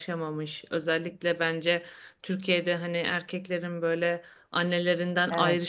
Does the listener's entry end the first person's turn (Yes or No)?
No